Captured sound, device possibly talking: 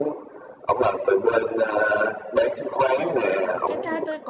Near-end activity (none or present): present